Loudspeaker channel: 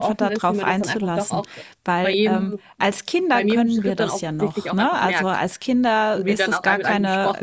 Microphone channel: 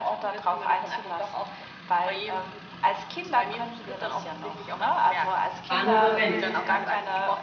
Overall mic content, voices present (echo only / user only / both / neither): both